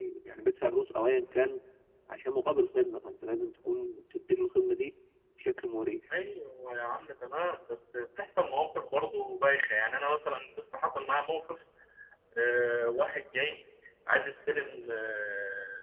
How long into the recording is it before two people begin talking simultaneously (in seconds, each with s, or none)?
none